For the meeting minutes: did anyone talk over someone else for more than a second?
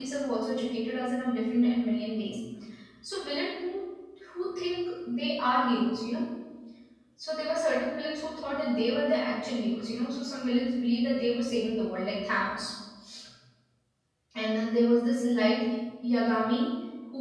No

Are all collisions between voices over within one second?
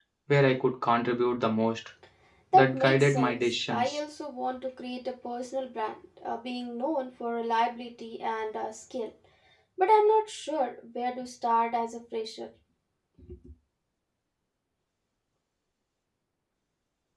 No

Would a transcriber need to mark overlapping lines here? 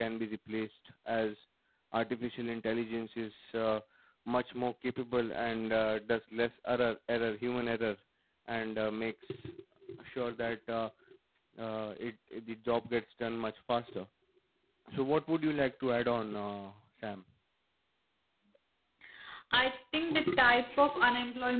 No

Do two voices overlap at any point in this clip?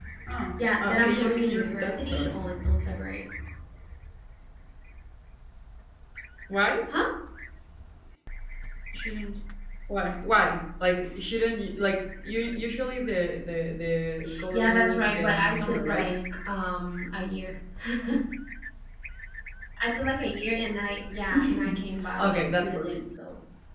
Yes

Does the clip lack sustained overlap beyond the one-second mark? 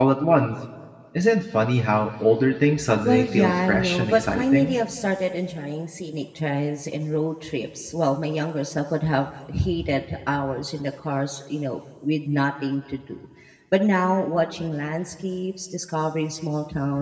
No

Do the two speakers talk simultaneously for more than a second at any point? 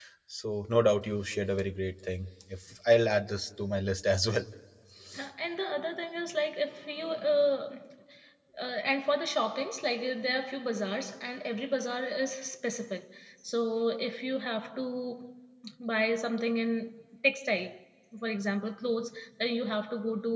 No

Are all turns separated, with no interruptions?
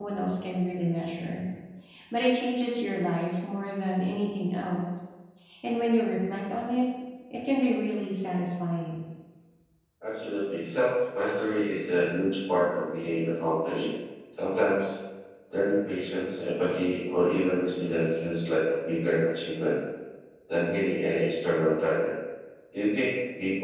Yes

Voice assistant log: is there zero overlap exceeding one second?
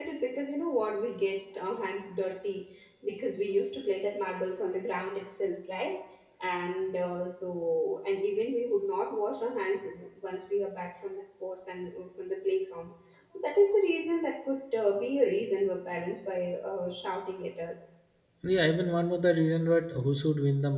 Yes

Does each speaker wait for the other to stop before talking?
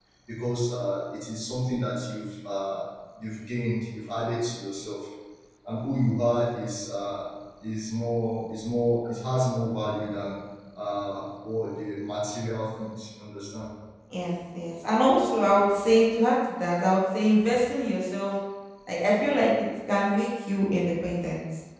Yes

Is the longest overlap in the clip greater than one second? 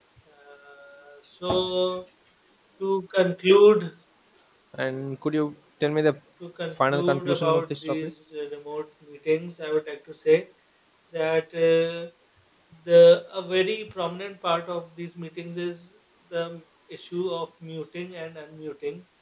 Yes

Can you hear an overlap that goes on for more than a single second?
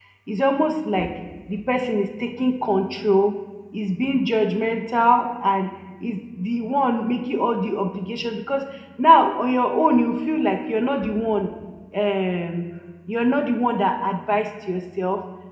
No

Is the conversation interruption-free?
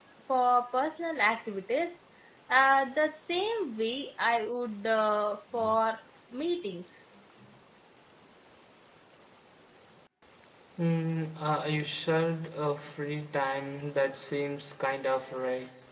Yes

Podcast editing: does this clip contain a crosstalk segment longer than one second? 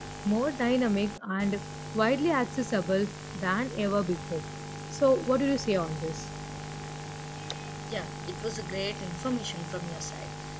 No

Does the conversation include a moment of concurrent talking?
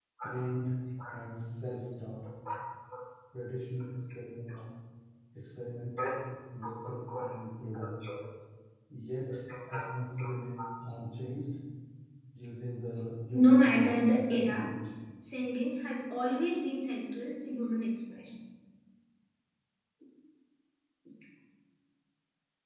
Yes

